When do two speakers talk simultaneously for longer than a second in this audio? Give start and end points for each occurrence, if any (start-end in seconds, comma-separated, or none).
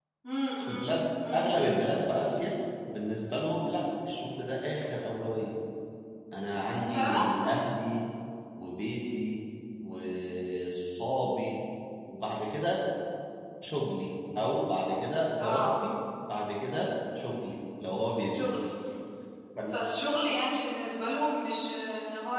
none